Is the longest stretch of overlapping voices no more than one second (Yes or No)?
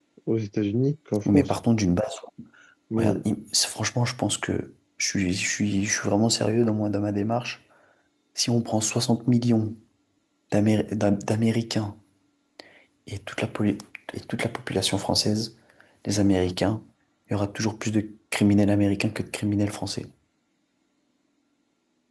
Yes